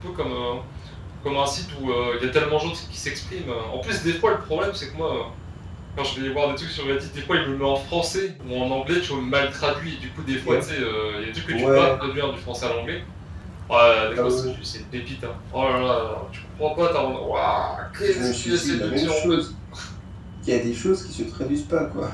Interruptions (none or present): present